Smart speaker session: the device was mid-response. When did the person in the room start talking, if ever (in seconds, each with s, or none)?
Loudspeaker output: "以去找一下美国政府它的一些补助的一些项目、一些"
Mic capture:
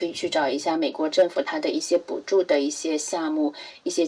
none